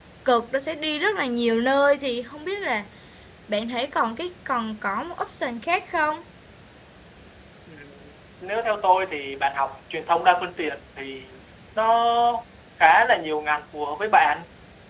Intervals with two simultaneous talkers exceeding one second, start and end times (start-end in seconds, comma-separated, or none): none